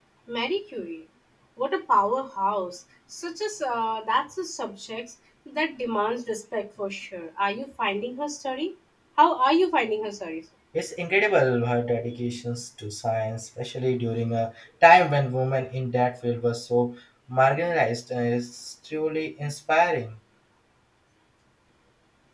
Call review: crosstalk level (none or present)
none